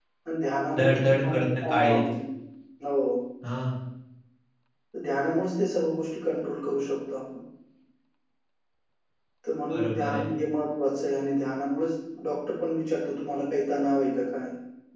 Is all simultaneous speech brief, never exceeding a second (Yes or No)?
No